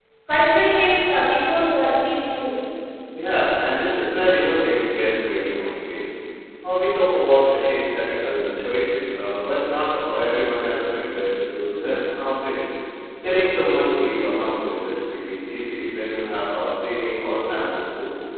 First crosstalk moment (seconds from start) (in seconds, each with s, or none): none